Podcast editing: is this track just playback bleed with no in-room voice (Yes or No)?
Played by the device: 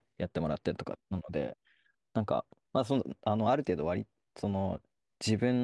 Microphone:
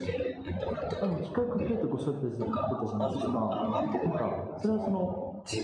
No